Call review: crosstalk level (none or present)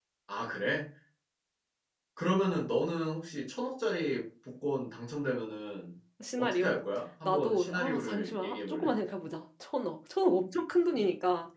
present